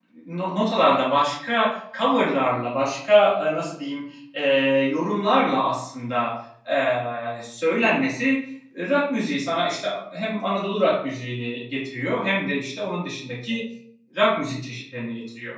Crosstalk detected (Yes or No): No